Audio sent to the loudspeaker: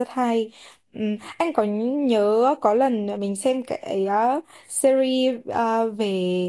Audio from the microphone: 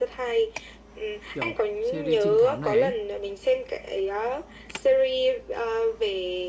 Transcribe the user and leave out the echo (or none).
kiểu series trinh thám này ấy,